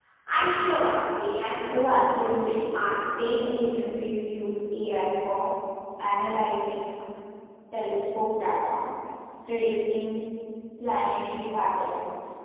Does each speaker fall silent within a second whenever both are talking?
No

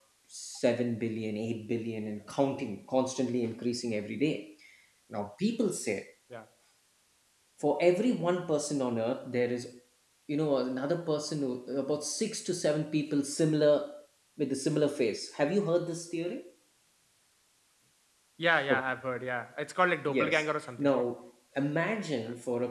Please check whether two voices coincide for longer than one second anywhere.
No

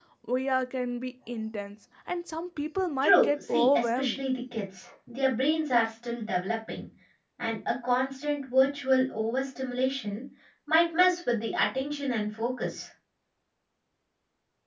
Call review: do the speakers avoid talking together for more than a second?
No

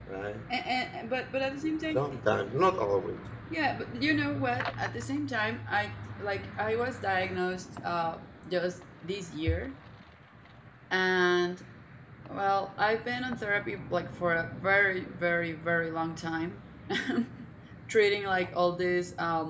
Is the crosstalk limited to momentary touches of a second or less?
Yes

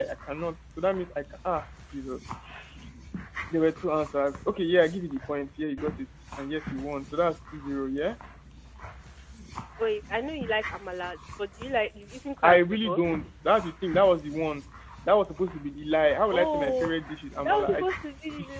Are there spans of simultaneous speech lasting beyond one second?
No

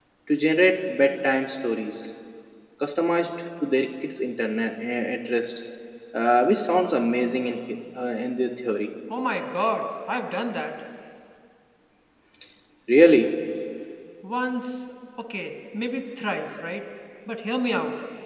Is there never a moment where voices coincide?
Yes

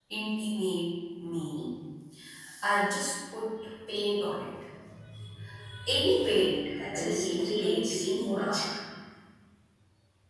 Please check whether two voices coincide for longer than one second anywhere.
Yes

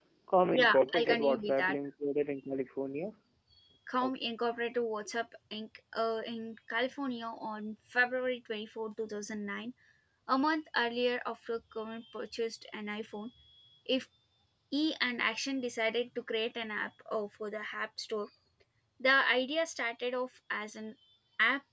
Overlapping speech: Yes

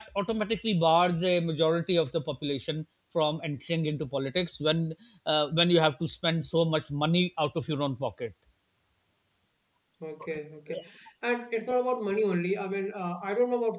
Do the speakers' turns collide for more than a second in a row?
No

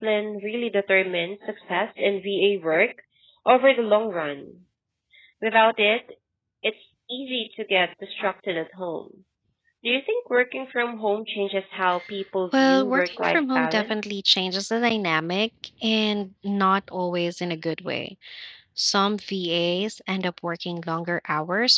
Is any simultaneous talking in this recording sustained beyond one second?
Yes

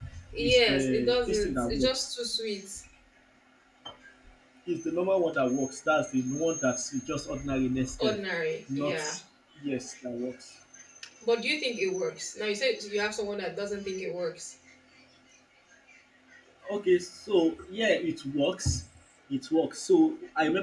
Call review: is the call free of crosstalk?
No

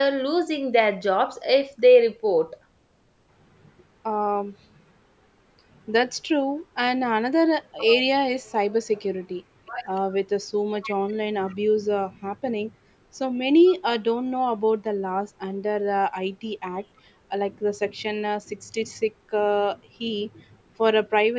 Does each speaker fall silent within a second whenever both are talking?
Yes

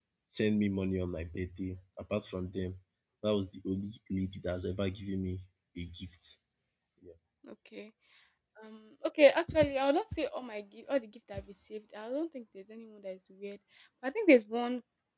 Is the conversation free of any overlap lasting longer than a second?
Yes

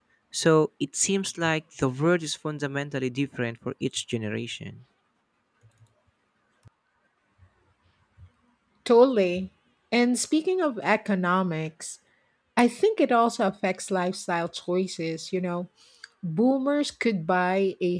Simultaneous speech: No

